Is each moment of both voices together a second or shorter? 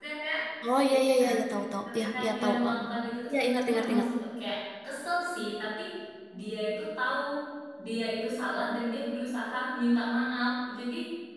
No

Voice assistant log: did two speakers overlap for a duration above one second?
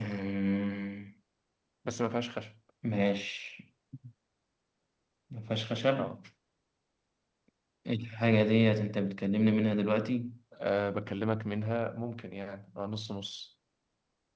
No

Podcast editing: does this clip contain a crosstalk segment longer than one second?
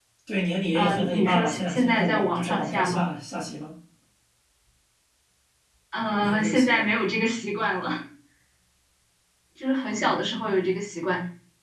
Yes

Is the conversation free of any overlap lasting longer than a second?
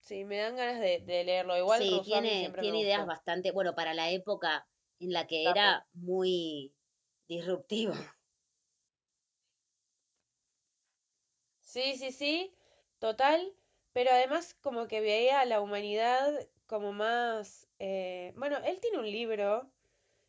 No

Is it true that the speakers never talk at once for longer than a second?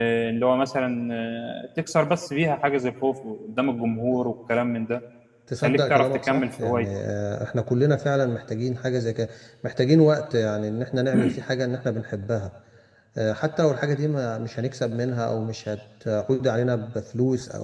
No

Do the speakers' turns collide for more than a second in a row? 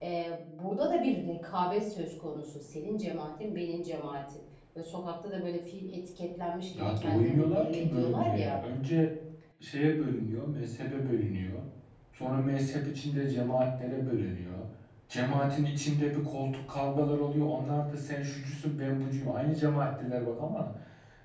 Yes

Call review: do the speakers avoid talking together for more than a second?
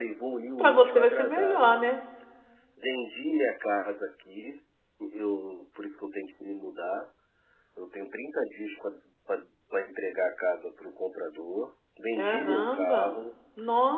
No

